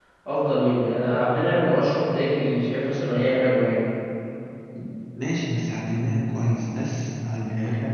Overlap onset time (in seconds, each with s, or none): none